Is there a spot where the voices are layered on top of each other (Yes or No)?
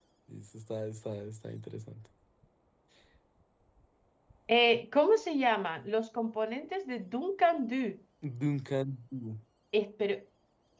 No